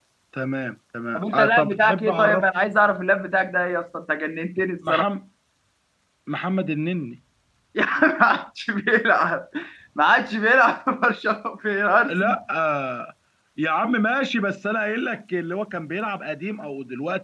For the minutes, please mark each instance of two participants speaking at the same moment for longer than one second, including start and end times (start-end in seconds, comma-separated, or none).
1.1-2.5